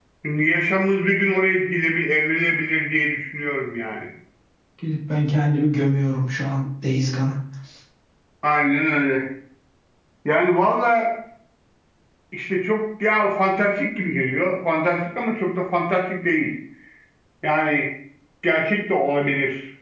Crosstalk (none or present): none